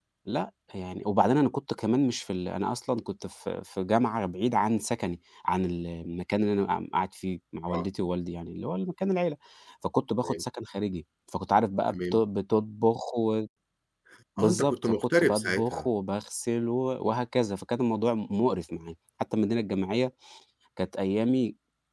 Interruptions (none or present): present